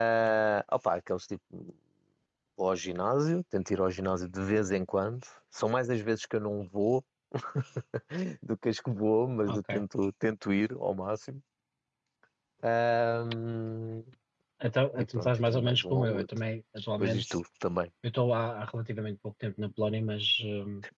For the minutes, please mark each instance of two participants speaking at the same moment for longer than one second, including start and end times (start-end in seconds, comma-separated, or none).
15.0-16.3